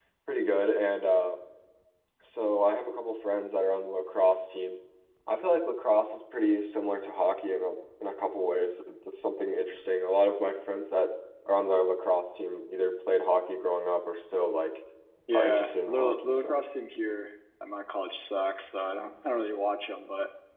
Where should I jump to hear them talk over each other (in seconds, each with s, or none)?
15.3 s